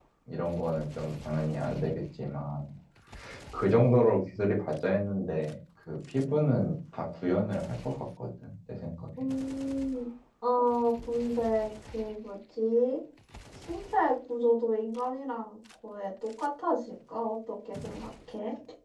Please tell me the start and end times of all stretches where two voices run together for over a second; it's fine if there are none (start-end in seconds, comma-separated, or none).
none